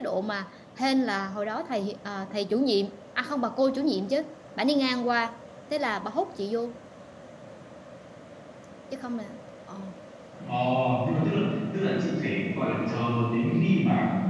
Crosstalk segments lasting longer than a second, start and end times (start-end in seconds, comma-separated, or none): none